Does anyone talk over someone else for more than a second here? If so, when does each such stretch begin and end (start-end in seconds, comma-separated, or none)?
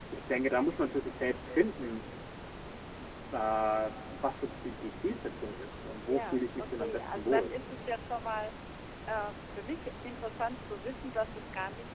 6.0-7.5